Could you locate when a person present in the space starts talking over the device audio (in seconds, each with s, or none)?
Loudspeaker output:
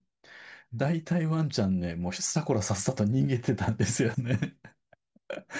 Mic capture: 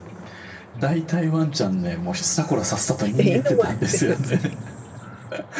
3.1 s